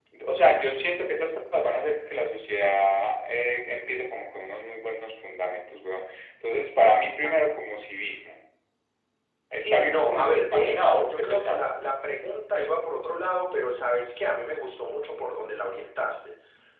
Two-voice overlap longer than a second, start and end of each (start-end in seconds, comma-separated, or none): 9.5-11.7